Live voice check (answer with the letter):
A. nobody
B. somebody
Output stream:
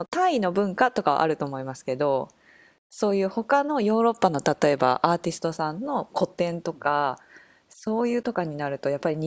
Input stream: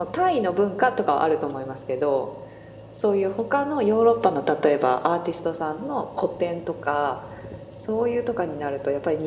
A